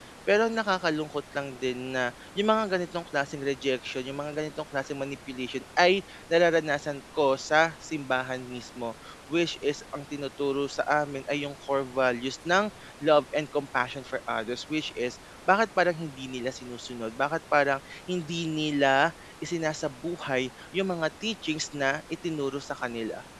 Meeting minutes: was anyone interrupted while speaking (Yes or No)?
No